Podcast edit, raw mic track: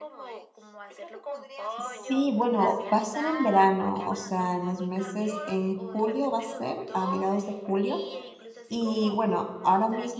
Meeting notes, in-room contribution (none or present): present